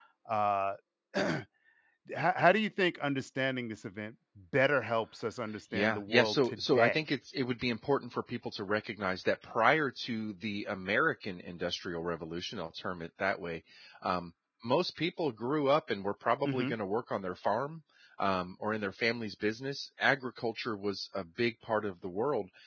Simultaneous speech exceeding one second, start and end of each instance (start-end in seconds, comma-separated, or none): 5.7-7.0